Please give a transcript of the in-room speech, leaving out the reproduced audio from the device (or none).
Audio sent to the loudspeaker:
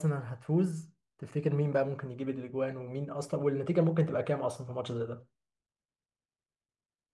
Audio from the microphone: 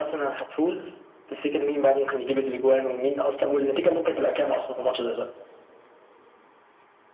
none